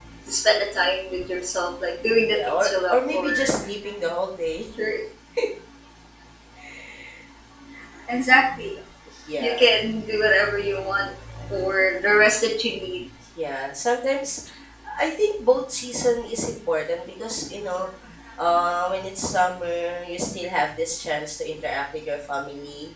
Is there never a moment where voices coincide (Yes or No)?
No